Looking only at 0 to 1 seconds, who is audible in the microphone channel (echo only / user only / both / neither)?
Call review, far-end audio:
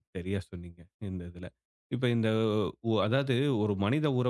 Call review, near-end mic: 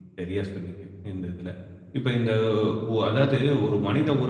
echo only